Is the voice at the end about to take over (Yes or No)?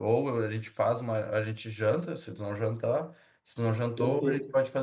No